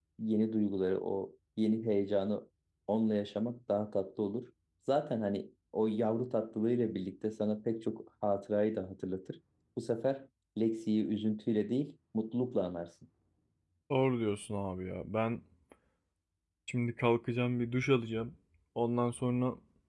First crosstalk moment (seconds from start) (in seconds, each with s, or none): none